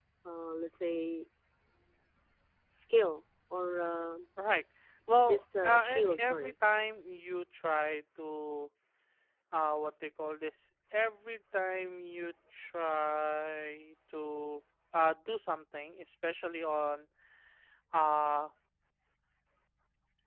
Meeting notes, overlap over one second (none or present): present